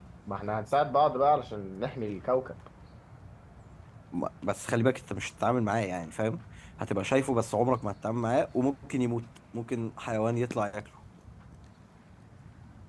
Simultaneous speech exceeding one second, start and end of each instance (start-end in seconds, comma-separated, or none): none